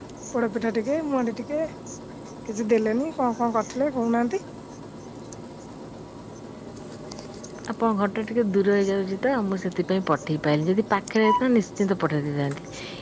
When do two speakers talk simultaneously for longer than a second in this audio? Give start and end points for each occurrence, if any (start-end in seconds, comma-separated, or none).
none